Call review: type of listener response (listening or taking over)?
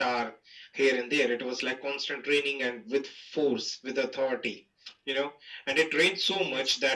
listening